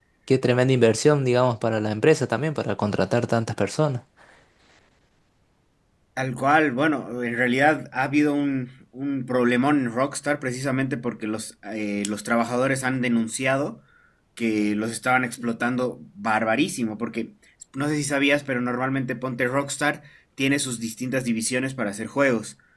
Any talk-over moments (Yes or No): No